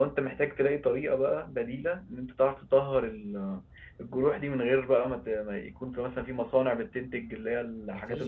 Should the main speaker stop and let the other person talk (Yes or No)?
Yes